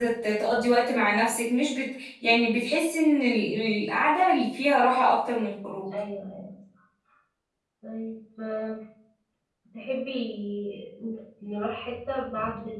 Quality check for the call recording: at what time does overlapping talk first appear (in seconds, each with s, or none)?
none